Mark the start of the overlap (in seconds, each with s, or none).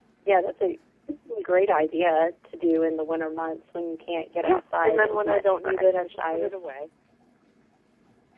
4.4 s